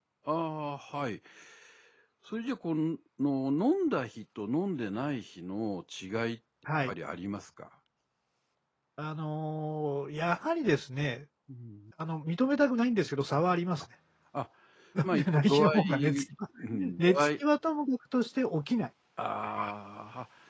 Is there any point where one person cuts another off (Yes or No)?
Yes